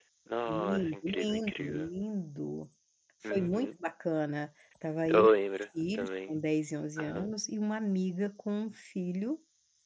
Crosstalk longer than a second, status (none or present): present